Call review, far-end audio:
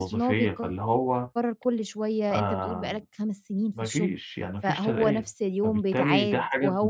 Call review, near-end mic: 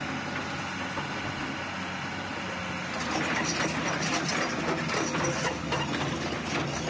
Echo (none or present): none